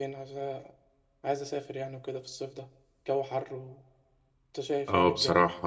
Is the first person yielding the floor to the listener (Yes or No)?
Yes